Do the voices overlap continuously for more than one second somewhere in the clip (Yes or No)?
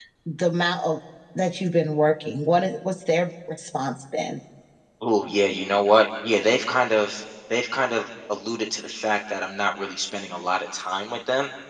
No